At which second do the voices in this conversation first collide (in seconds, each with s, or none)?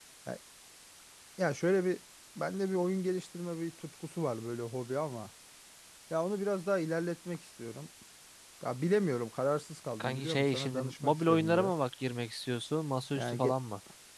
10.0 s